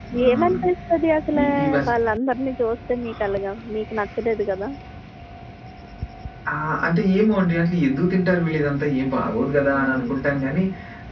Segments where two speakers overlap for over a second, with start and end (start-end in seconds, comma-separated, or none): none